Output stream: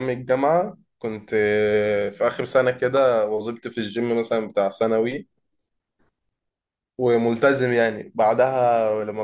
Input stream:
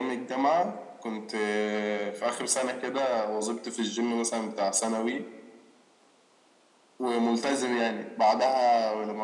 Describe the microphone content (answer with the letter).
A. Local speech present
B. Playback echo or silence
B